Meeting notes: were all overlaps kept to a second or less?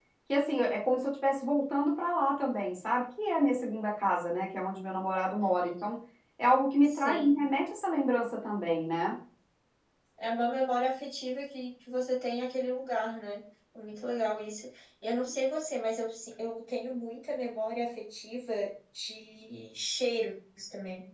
Yes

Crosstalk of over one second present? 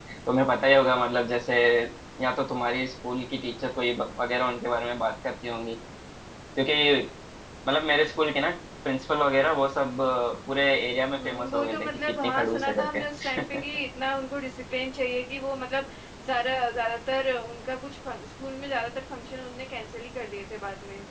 Yes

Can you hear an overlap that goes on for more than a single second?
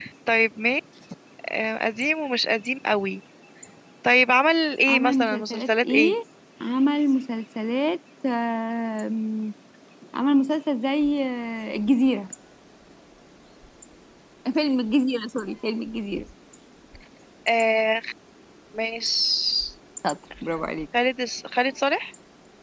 Yes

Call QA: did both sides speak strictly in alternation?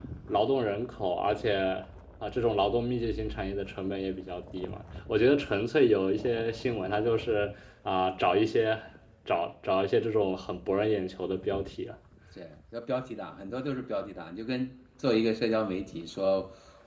Yes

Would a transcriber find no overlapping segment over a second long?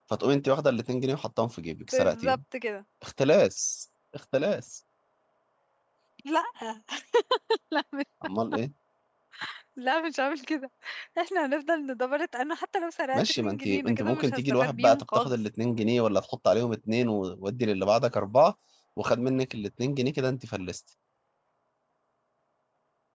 No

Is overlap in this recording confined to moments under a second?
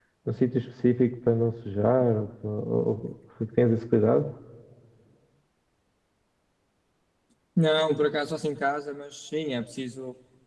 Yes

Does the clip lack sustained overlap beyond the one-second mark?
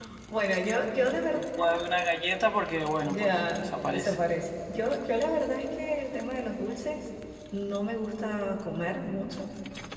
No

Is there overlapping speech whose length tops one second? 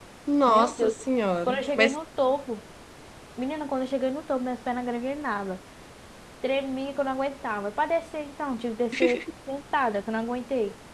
No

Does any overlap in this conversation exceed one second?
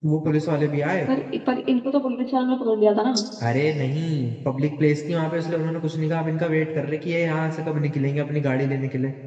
No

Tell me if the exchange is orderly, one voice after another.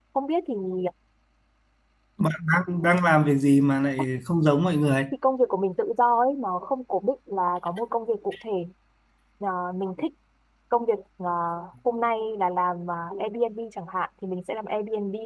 Yes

